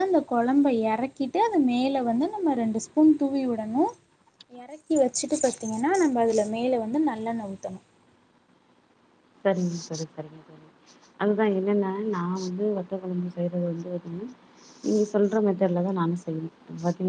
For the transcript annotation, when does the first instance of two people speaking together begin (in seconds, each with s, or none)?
none